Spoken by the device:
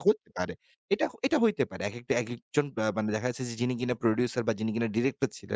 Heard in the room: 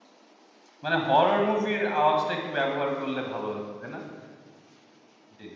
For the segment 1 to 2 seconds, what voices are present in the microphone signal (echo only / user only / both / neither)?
user only